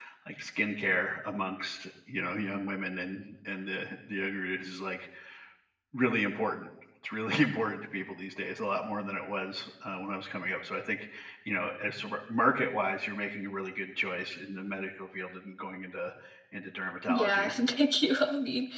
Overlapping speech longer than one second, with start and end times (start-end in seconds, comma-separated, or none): none